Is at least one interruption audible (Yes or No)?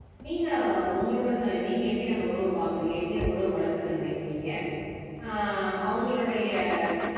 No